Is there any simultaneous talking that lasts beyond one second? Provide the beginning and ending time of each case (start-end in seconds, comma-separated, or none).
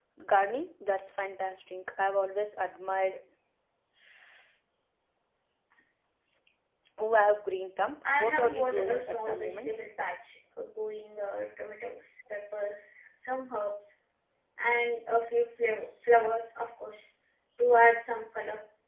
8.0-9.8